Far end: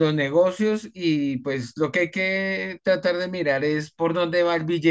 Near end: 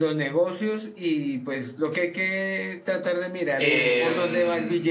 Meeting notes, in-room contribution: present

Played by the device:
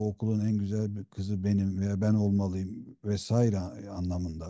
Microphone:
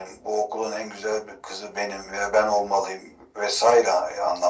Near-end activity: none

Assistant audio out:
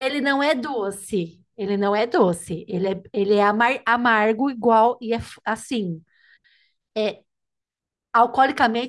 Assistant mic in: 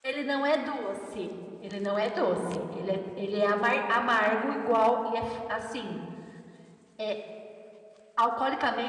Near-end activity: none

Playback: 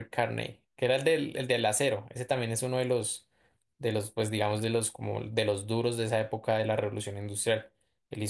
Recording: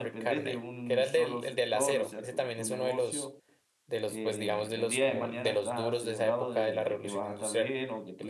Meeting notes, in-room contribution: present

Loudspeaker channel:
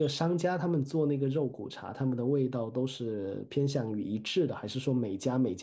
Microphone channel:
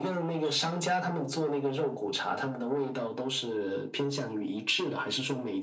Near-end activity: none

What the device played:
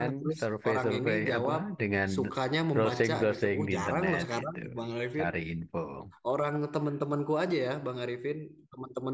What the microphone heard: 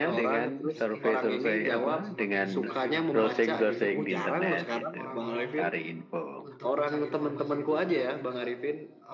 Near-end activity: present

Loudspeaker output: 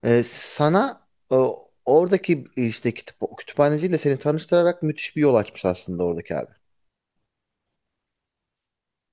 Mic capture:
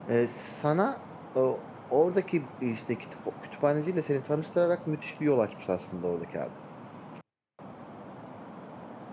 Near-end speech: none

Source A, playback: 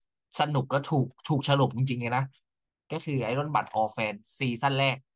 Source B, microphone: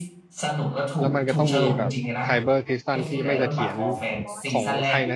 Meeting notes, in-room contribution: present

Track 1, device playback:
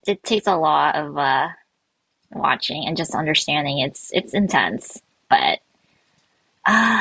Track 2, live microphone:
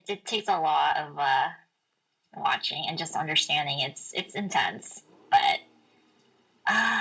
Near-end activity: none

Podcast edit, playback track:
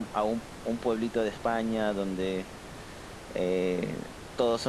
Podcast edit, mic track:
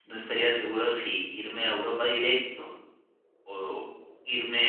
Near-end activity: present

